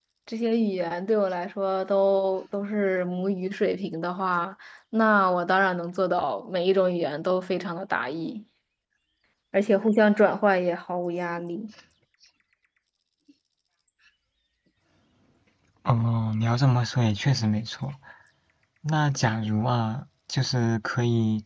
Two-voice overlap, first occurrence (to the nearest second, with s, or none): none